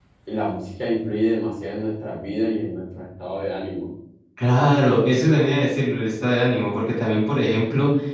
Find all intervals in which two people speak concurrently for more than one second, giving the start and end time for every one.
none

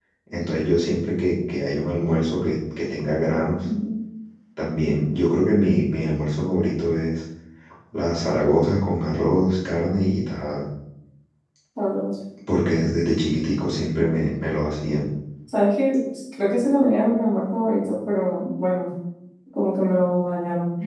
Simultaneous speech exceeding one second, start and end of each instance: none

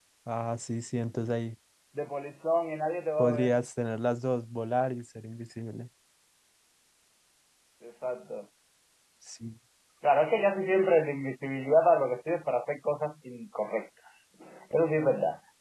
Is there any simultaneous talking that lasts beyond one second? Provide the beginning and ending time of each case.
none

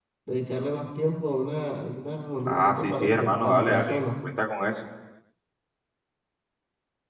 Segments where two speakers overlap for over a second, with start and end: 2.5-4.0

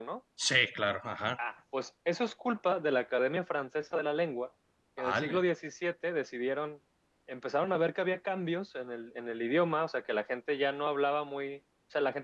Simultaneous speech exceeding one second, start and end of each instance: none

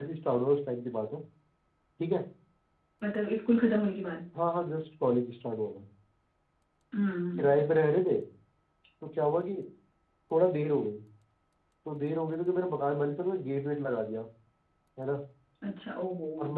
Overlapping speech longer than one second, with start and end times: none

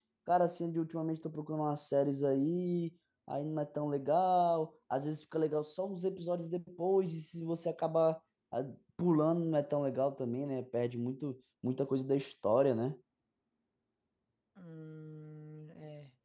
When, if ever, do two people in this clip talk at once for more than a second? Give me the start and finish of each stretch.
none

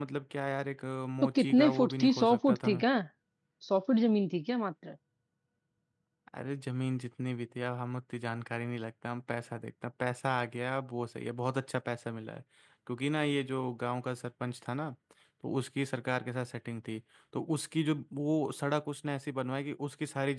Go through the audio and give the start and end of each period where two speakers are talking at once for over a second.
1.2-2.7

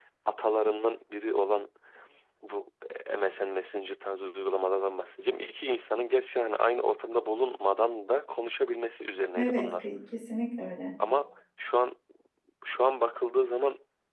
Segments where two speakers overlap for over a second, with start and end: none

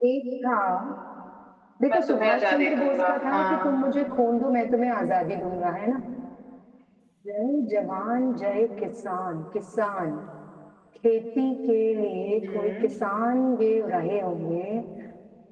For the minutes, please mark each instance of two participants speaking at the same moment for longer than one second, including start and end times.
1.9-3.7

